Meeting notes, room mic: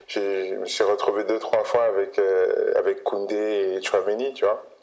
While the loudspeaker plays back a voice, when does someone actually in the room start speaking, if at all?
none

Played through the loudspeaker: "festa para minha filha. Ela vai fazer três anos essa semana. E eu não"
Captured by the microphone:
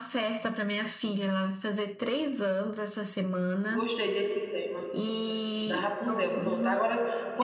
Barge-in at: 3.7 s

